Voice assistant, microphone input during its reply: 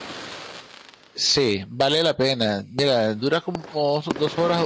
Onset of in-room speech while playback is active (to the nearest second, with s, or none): 1 s